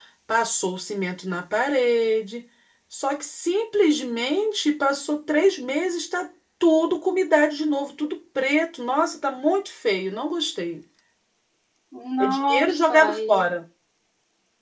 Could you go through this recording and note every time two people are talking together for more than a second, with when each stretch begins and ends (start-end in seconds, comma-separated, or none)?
12.2-13.5